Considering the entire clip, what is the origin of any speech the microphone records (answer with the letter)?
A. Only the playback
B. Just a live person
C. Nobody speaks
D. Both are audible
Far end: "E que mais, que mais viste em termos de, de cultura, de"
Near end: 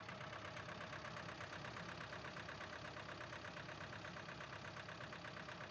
C